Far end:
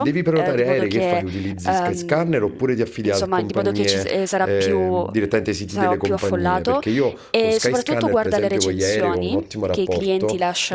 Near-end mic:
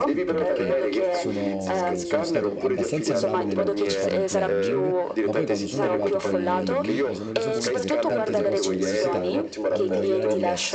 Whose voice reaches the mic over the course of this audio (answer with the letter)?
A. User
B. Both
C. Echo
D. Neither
B